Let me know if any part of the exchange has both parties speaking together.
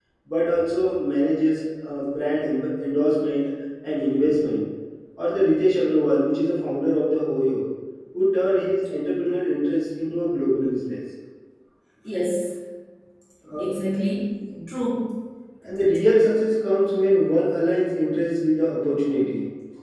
No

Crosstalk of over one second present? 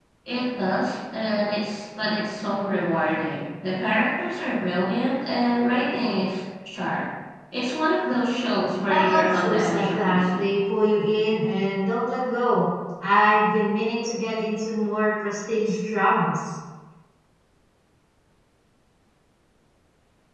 Yes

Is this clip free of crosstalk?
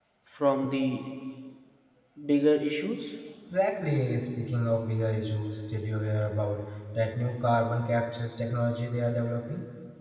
Yes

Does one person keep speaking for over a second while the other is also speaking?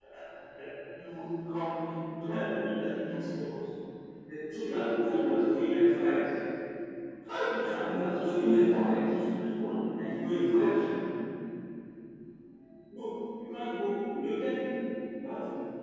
Yes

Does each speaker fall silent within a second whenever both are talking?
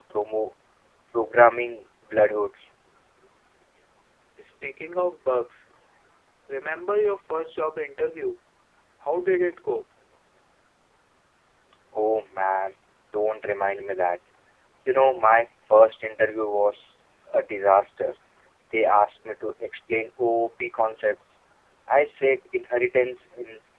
Yes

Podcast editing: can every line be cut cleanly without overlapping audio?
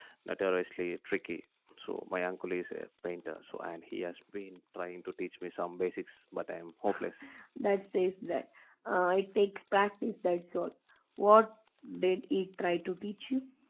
Yes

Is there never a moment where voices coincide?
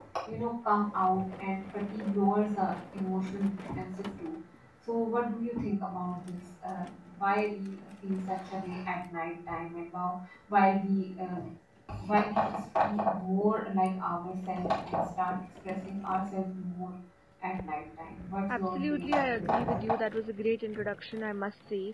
No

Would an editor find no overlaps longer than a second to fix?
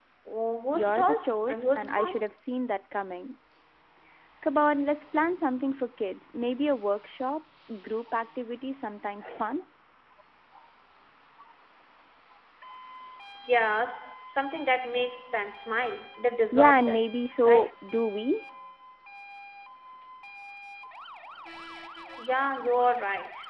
No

